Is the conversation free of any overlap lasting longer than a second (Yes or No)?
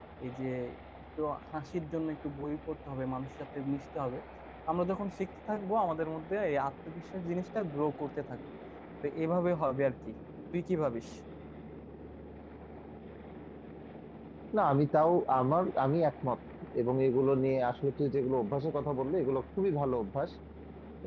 Yes